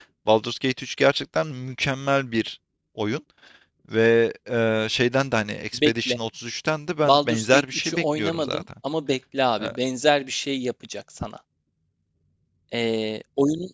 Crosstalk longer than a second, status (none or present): present